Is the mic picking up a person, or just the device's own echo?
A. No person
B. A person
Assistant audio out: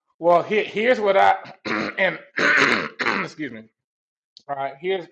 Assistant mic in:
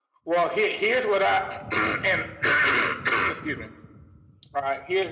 A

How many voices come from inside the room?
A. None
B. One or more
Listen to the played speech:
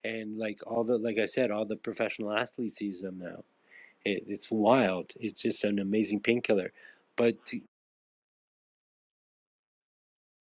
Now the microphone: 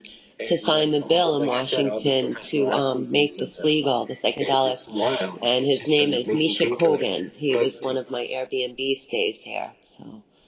B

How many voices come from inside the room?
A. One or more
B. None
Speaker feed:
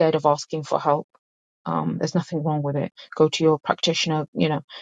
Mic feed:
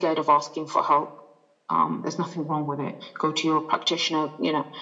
B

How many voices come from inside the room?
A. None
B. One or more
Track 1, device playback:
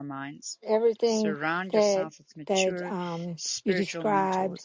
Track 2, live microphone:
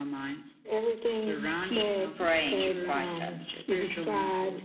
B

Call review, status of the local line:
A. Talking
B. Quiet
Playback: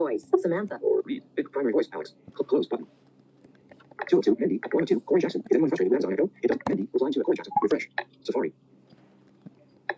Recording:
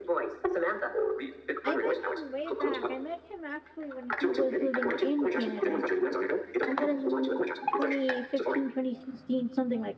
A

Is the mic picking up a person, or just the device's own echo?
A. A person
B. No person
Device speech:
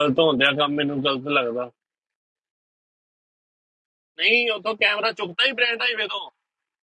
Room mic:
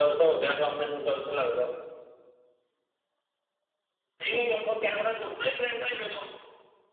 B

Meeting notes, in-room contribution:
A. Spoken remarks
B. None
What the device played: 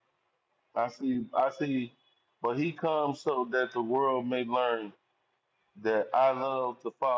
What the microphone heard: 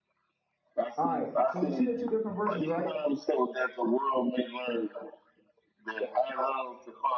A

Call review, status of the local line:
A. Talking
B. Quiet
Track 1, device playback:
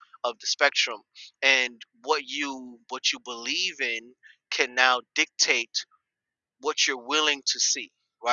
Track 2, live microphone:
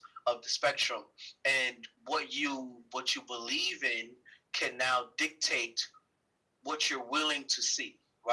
B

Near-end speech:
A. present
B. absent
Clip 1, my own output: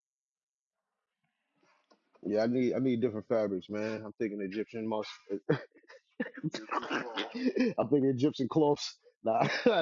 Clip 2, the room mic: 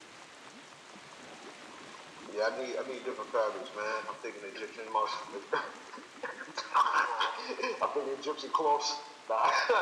B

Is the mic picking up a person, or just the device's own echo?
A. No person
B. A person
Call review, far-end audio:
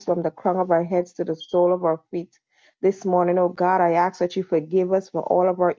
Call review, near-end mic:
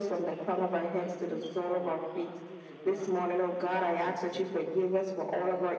B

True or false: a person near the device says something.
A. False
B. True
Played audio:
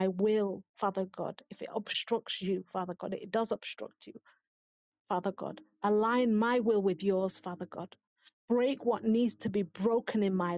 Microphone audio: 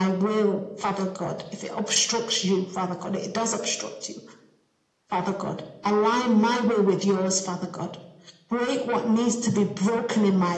A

